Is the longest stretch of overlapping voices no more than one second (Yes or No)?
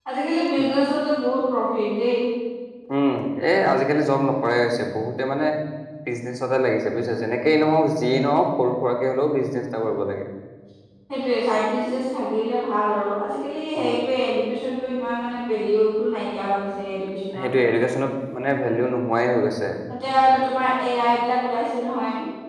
Yes